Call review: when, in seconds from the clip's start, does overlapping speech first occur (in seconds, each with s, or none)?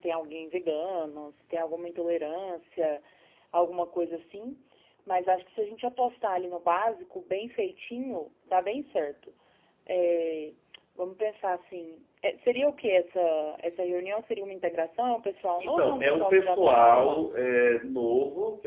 15.6 s